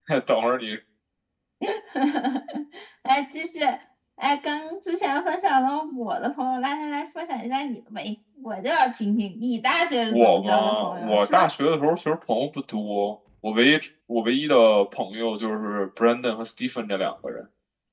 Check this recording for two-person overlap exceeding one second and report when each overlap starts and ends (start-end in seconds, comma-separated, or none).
10.1-11.5